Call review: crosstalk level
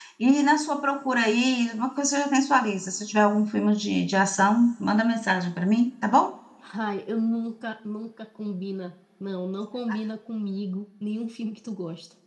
none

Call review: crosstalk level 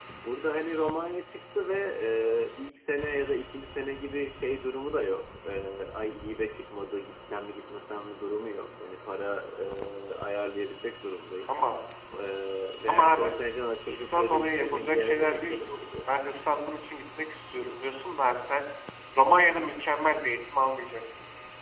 present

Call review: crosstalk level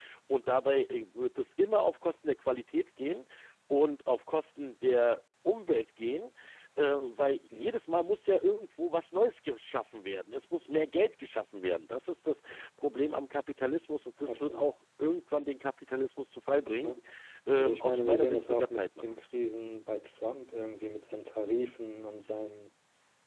present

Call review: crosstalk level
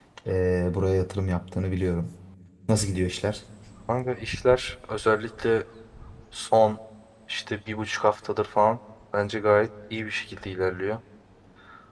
none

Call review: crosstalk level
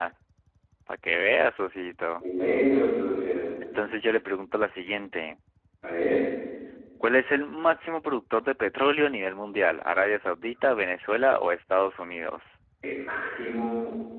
none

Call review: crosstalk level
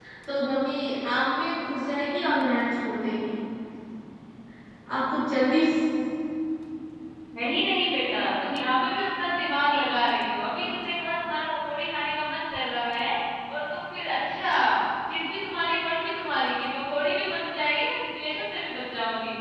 none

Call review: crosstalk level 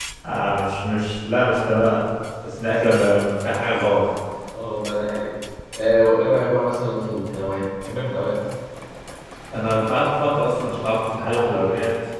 none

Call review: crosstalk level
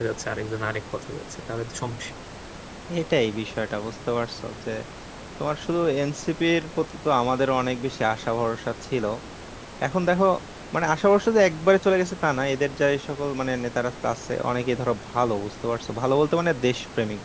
none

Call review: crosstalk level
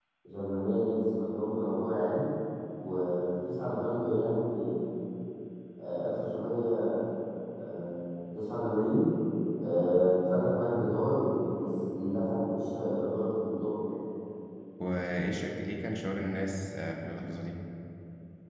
none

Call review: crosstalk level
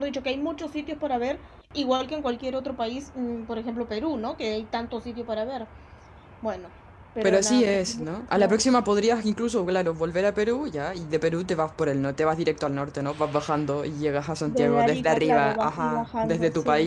present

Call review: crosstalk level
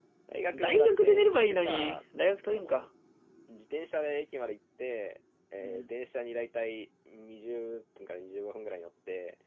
present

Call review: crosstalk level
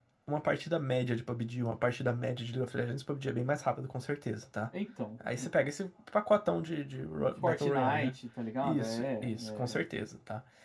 present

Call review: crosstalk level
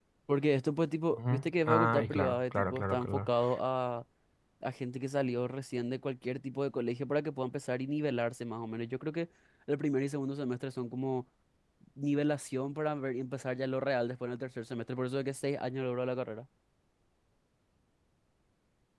present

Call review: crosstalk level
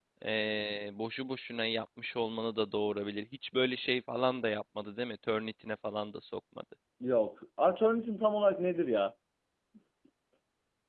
none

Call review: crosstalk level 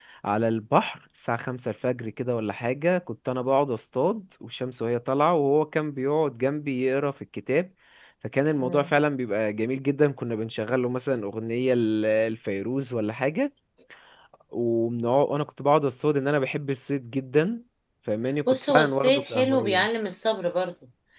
present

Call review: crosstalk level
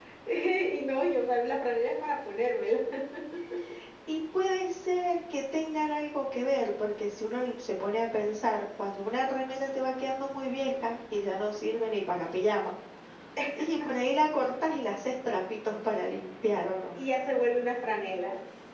none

